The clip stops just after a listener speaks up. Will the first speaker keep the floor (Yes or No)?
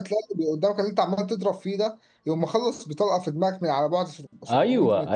No